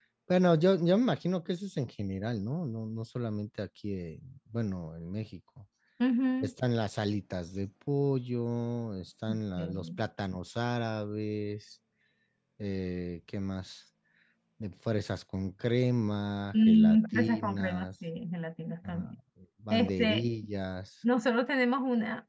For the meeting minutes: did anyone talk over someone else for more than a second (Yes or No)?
Yes